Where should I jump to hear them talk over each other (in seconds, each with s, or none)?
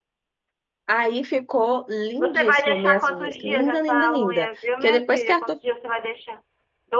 2.2 s